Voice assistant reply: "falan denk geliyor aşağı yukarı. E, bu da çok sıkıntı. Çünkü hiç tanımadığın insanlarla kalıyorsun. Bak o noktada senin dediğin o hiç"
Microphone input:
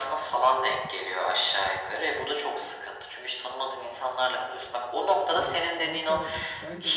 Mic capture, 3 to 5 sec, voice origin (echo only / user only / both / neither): echo only